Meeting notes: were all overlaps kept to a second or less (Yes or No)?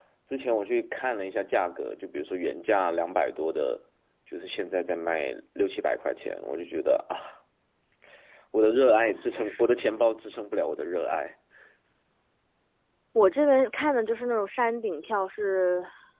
Yes